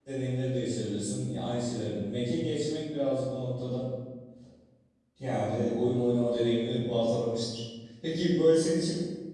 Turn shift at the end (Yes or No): No